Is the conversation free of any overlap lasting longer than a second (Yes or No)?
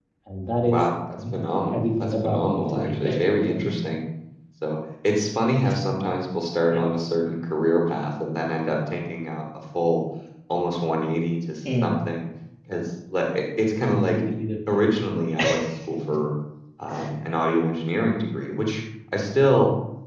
No